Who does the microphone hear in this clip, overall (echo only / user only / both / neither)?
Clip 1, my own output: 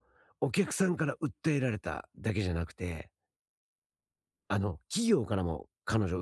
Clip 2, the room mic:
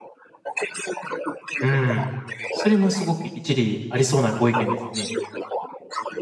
both